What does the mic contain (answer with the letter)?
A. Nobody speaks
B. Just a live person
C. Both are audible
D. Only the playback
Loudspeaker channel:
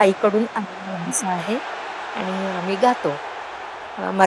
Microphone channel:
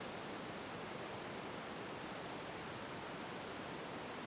A